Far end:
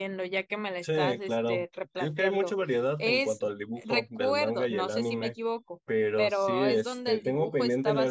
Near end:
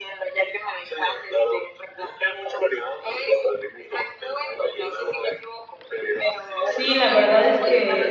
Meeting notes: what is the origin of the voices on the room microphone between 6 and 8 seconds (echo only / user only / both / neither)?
both